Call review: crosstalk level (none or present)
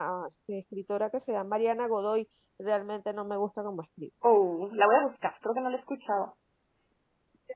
none